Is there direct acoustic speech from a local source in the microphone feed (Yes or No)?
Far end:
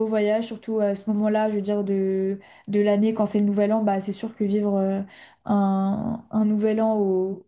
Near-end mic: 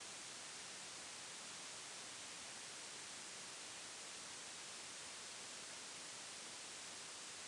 No